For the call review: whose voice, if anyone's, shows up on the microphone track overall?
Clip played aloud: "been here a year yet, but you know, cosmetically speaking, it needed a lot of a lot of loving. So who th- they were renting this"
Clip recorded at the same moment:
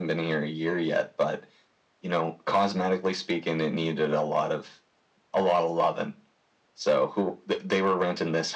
echo only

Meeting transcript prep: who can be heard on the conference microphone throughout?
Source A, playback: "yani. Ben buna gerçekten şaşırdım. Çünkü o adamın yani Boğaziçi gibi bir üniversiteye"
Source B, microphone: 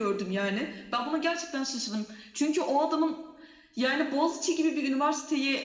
echo only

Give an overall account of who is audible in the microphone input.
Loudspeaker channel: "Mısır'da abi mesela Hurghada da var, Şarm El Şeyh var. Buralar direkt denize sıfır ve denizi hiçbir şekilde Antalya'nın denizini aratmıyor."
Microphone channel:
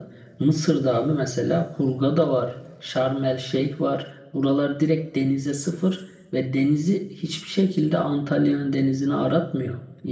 echo only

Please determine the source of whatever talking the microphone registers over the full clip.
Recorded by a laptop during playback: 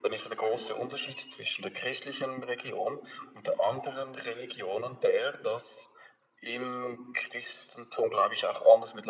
echo only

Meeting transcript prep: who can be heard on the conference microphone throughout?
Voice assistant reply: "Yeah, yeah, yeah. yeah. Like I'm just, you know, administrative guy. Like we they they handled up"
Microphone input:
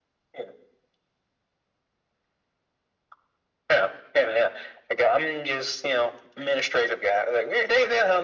echo only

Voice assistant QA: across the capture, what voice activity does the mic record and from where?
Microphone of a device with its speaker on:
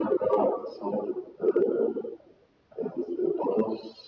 echo only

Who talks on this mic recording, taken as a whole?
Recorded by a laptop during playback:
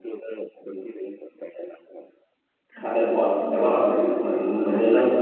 both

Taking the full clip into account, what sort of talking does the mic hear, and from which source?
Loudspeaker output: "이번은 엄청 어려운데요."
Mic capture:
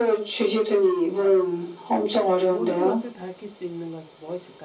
both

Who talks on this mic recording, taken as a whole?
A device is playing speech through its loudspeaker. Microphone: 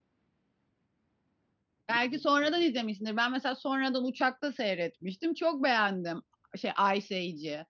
user only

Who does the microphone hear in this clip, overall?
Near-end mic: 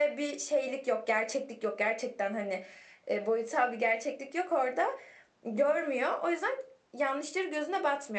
echo only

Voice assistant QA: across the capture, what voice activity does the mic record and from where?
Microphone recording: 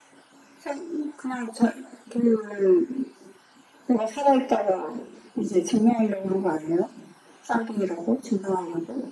echo only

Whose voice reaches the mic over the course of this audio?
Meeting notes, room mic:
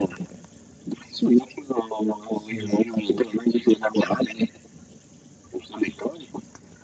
both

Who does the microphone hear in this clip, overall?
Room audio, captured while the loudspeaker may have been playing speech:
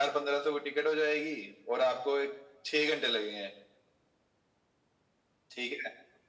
echo only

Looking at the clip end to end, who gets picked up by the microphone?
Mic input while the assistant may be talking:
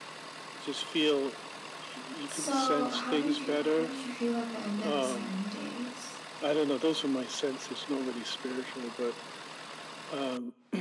both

